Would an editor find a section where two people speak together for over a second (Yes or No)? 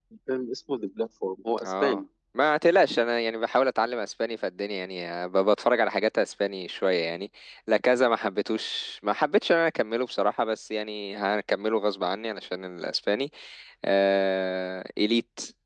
No